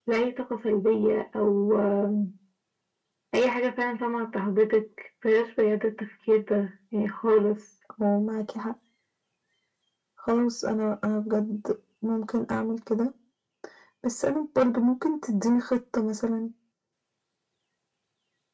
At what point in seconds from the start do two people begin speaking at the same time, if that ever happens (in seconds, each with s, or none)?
none